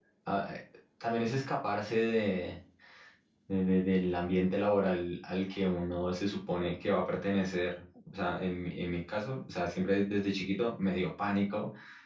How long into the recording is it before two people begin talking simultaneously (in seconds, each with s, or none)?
none